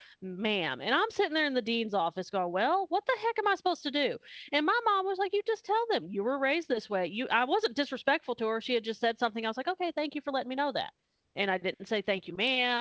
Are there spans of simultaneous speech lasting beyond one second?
No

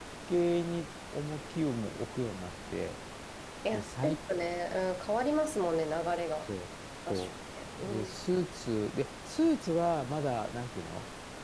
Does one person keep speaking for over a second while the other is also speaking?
No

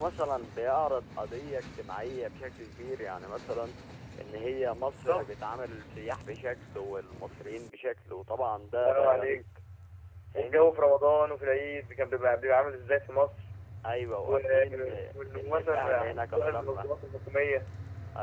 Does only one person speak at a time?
No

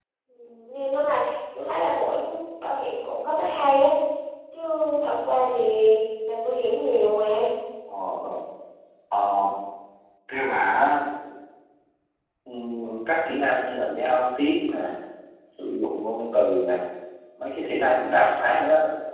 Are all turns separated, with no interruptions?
Yes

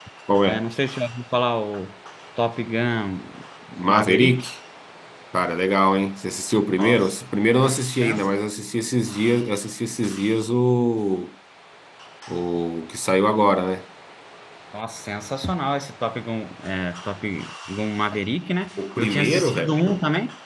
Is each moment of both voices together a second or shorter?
No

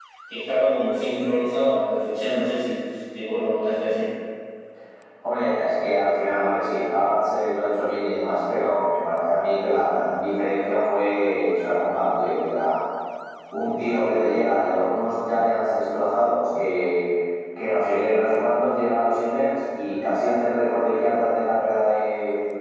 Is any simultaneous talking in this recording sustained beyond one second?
No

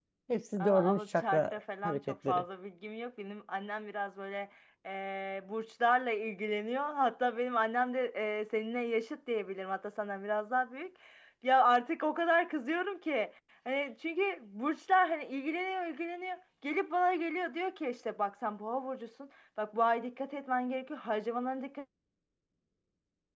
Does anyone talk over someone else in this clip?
Yes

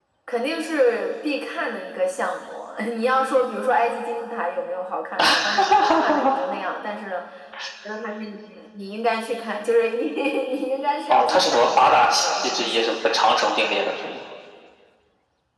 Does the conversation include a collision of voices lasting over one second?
Yes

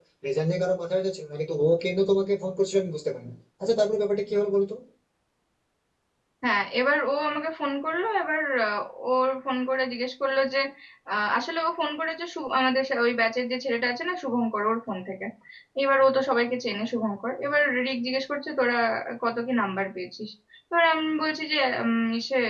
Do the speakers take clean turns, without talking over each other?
Yes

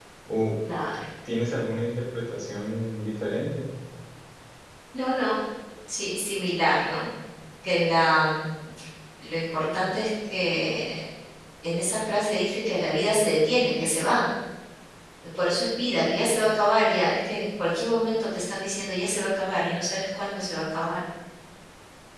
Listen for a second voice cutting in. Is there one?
No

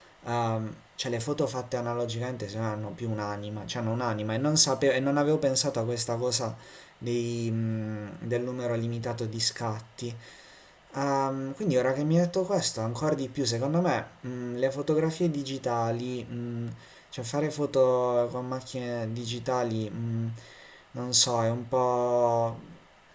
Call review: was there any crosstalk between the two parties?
No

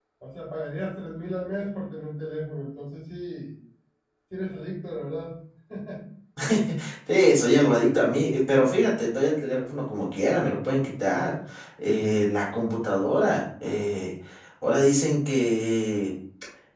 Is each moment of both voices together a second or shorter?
Yes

